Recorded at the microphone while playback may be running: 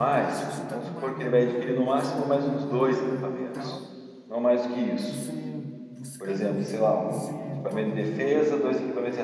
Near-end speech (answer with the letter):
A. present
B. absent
A